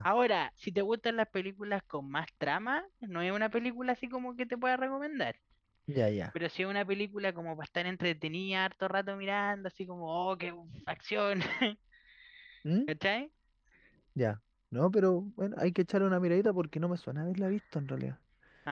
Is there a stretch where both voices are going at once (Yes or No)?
No